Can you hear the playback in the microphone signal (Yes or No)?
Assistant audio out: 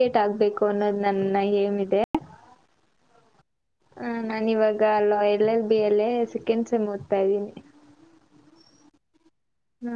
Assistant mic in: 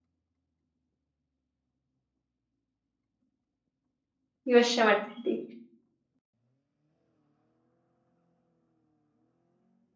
No